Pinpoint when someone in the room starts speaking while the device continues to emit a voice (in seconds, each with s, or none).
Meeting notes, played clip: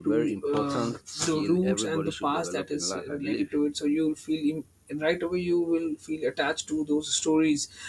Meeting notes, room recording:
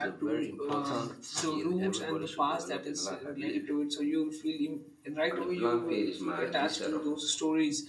5.3 s